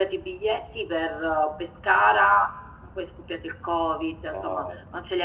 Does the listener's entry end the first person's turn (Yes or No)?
No